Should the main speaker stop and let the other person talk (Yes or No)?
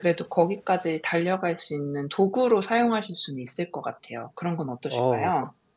Yes